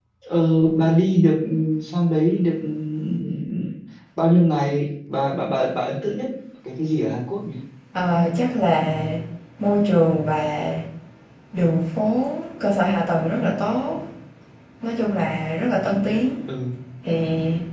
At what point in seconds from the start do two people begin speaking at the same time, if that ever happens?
none

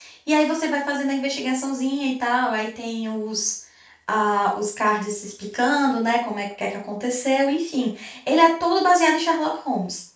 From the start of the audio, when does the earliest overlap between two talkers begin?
none

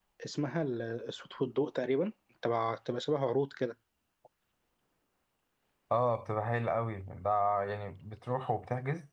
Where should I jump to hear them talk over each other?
none

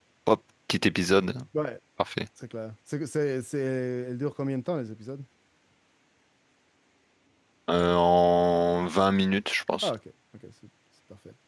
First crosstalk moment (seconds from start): none

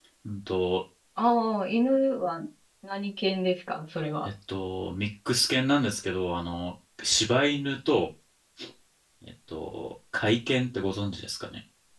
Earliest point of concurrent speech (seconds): none

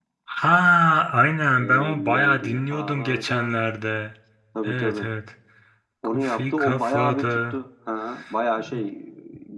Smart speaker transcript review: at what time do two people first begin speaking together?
2 s

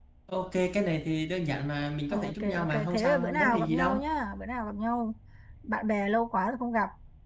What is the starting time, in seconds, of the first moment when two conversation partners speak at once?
2 s

